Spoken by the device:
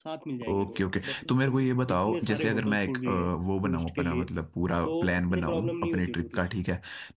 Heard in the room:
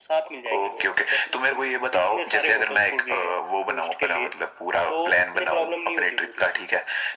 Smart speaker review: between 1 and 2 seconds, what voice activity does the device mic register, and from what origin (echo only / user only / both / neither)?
echo only